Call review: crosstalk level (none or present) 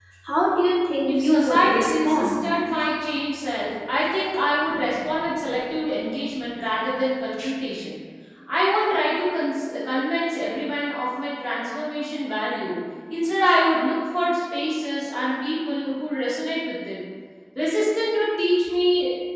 present